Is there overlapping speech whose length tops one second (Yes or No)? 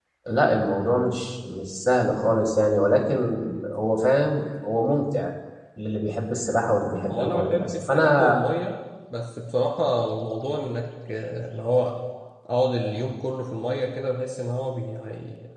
Yes